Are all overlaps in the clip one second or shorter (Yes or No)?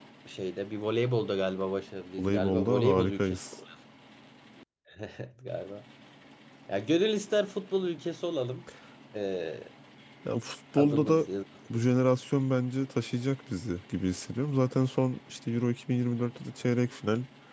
No